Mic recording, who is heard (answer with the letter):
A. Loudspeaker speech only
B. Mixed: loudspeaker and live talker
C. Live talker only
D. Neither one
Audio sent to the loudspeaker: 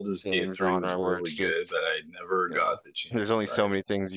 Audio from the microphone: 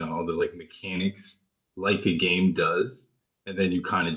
C